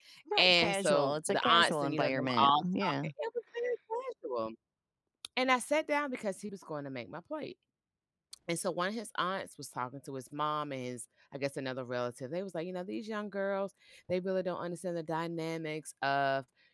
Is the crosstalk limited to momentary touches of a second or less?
No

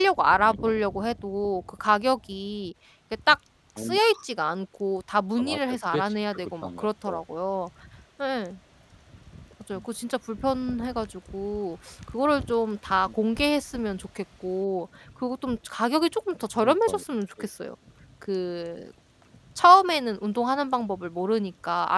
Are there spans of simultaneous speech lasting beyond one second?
Yes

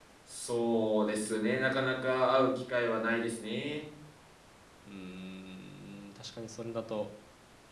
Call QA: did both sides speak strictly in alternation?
Yes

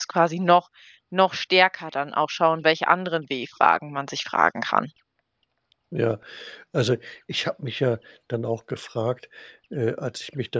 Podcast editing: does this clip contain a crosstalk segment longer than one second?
No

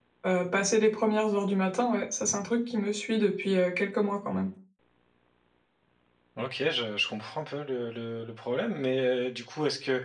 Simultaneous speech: No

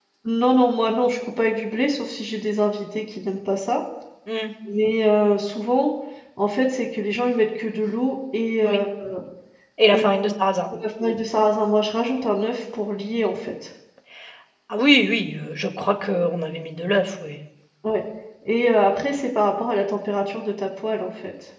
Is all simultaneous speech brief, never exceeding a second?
Yes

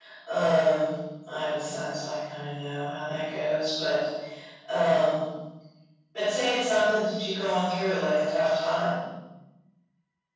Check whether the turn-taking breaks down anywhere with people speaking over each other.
No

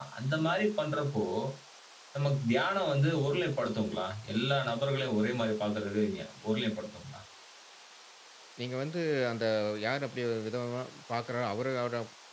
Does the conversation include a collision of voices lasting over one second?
No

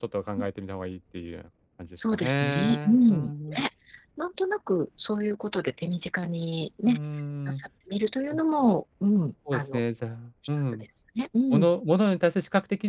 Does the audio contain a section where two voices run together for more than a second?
Yes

